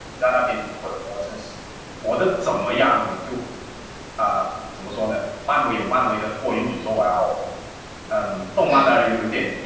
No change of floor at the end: Yes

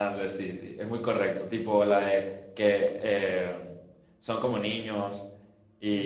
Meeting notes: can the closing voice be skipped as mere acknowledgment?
Yes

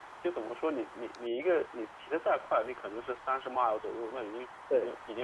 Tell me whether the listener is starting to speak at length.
No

